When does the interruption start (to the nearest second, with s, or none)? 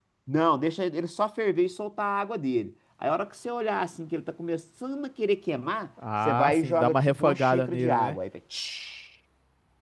6 s